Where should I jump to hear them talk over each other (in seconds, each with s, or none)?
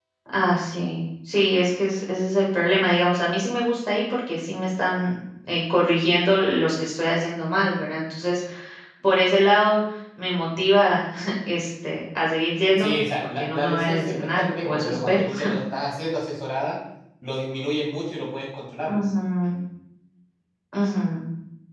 12.8 s